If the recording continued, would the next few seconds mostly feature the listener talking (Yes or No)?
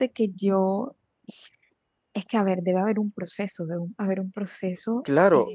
Yes